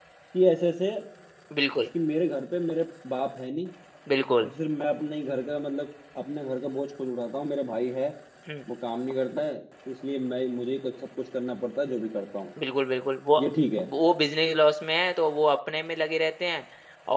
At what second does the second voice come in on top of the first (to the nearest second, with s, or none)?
none